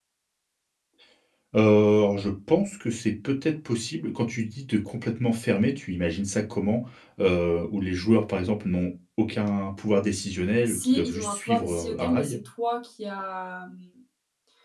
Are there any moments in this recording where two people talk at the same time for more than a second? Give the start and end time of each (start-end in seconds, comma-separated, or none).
10.7-12.4